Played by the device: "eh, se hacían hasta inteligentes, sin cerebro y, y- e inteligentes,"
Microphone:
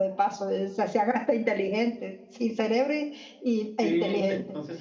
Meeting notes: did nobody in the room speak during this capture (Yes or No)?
No